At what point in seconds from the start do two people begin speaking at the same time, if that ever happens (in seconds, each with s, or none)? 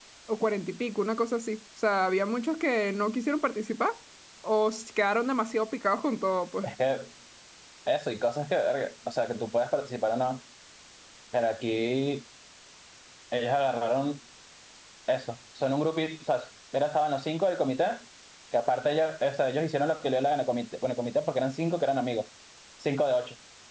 none